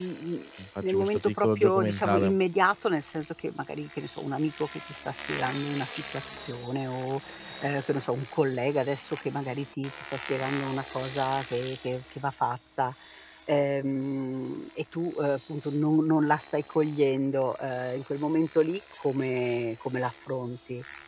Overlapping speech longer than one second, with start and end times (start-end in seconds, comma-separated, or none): 0.8-2.4